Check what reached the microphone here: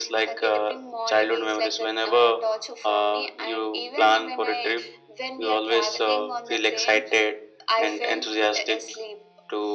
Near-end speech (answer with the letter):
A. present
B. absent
B